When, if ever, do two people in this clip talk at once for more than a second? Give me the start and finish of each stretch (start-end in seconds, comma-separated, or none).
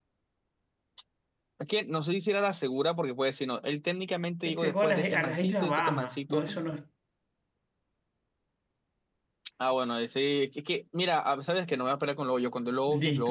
4.5-6.4